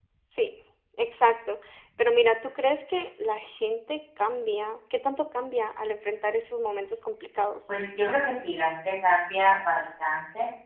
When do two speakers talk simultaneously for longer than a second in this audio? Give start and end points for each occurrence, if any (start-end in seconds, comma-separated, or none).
none